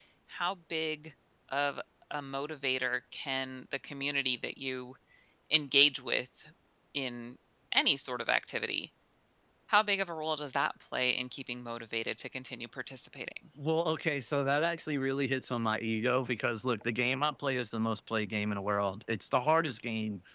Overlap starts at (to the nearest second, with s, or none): none